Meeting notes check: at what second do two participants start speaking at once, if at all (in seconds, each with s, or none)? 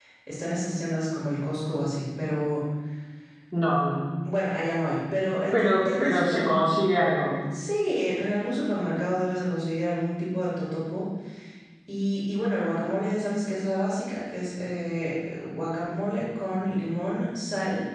5.5 s